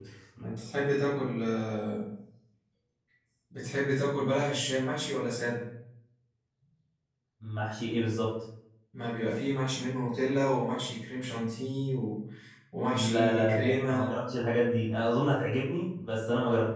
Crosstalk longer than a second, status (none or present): present